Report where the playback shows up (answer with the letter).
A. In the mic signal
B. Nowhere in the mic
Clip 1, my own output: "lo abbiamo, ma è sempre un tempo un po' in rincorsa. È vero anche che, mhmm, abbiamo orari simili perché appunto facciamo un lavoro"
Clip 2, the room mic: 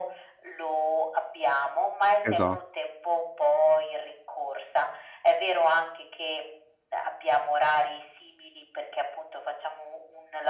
A